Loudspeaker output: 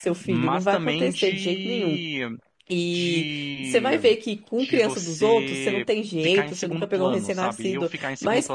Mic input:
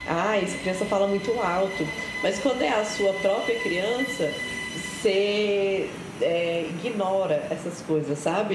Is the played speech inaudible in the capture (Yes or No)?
Yes